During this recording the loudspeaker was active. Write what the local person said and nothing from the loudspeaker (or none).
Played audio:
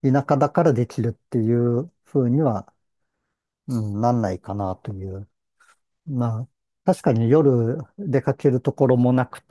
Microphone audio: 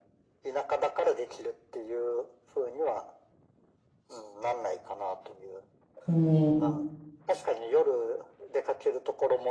うん。